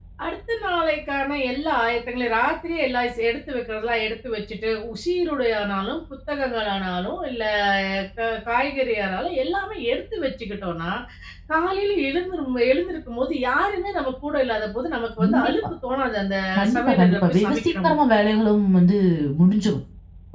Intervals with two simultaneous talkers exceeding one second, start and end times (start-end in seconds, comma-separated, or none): 16.8-18.0